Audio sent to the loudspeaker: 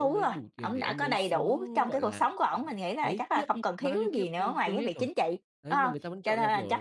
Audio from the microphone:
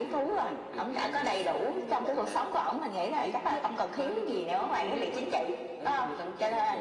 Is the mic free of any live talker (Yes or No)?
Yes